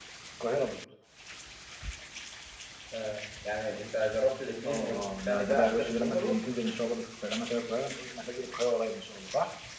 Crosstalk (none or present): present